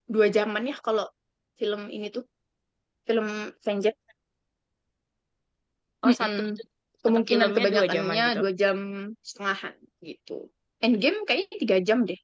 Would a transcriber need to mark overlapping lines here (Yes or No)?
Yes